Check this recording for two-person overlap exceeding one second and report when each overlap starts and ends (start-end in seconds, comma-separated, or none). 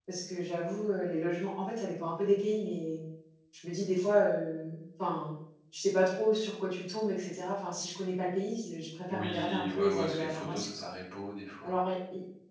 9.1-10.9